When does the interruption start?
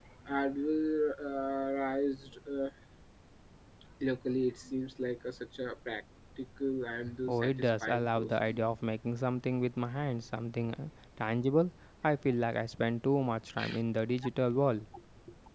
7.3 s

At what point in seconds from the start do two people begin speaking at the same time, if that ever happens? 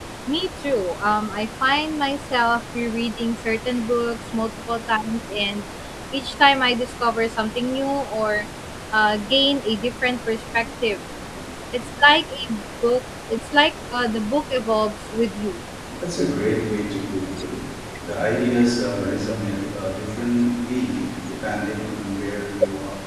none

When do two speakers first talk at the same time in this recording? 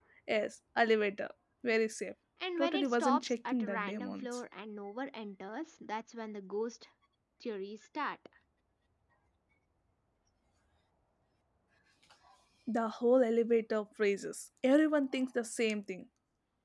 2.6 s

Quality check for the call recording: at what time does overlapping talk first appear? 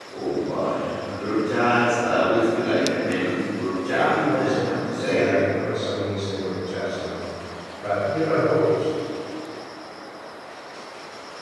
3.9 s

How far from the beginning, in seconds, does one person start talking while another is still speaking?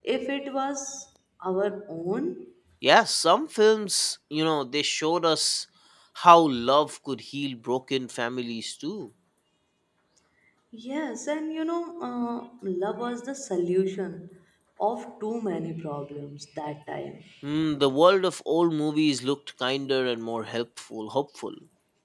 none

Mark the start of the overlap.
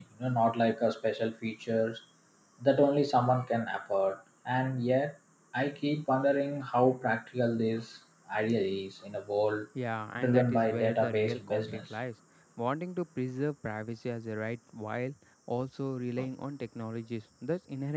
10.2 s

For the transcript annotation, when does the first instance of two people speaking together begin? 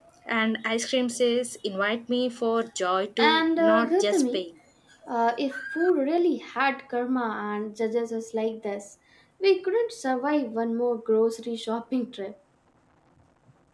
3.2 s

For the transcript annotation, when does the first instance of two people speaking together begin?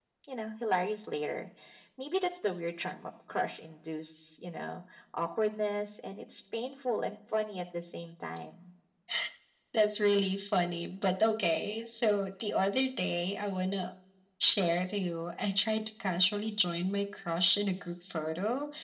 none

